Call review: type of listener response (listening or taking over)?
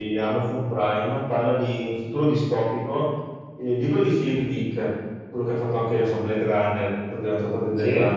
listening